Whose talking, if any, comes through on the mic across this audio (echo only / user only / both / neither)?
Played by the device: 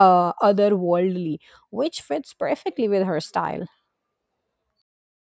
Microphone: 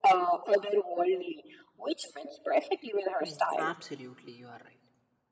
both